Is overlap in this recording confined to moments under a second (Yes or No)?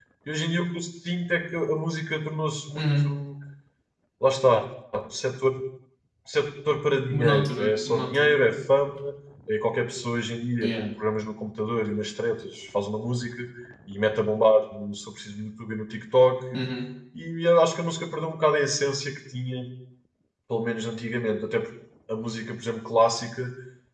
No